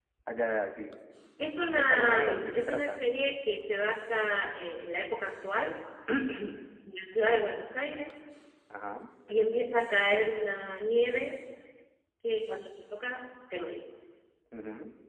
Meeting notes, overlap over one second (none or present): present